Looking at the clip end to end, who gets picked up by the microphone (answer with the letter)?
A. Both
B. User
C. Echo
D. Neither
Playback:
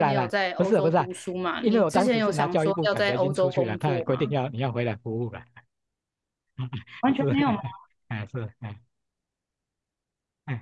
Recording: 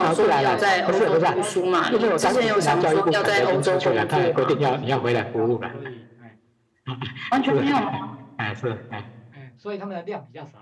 A